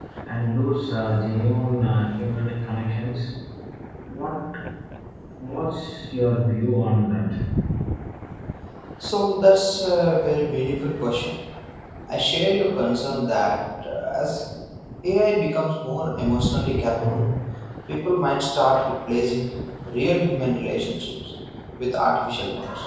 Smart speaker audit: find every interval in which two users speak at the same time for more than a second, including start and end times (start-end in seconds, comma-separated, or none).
none